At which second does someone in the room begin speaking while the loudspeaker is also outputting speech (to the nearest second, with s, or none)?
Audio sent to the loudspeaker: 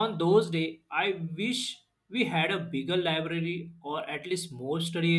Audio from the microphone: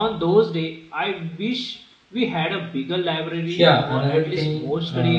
4 s